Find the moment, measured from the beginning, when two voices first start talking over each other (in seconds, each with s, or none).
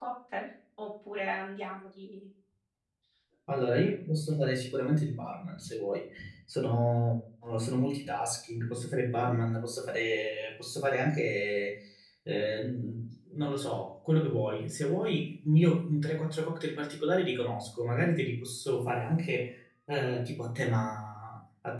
none